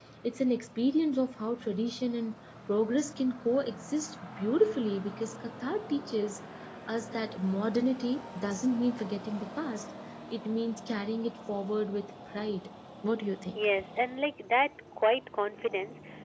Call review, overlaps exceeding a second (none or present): none